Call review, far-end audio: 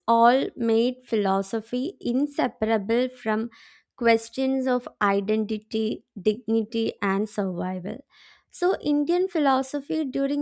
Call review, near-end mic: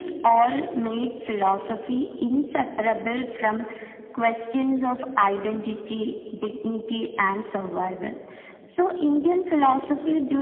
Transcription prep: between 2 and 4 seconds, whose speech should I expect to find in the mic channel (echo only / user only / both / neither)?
echo only